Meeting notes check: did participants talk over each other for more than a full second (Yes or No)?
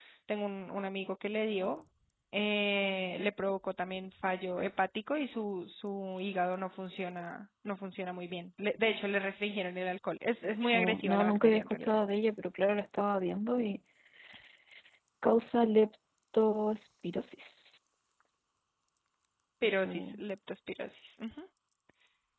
Yes